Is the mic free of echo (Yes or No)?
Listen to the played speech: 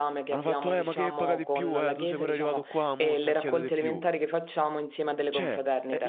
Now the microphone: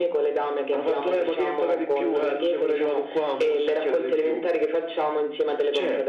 No